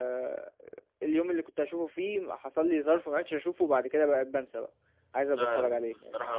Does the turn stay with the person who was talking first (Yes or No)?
No